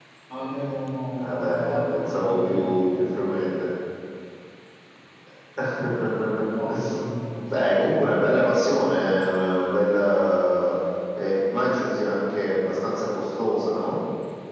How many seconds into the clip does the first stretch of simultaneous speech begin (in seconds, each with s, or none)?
1.2 s